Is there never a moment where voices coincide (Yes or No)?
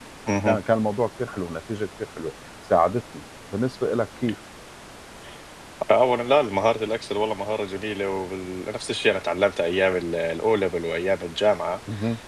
Yes